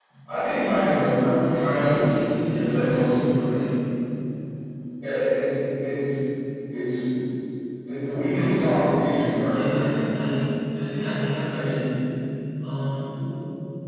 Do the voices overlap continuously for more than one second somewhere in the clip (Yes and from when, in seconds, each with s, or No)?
Yes, from 1.3 s